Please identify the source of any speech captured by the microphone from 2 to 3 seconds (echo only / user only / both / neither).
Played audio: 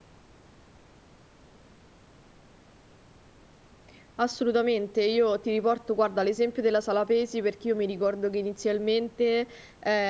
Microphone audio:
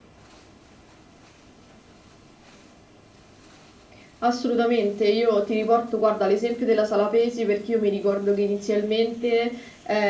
neither